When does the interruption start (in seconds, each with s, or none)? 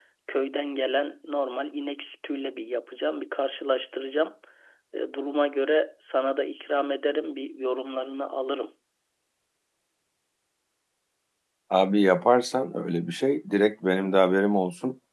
none